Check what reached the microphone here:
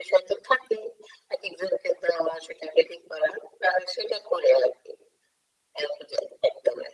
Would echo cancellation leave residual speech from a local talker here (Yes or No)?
No